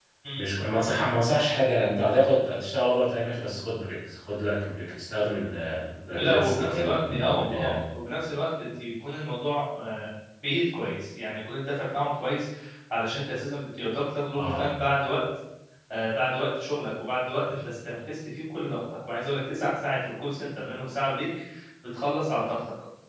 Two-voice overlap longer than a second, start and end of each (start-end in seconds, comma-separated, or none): 6.1-7.8